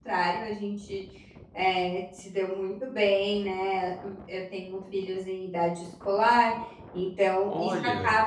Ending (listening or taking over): listening